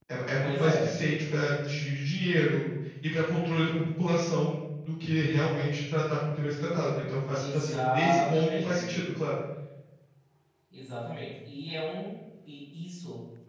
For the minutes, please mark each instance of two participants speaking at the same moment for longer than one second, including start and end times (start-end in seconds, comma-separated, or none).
7.4-9.0